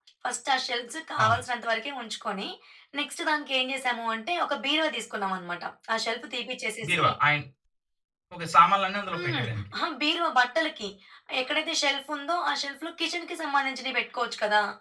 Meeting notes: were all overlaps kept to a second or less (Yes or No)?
Yes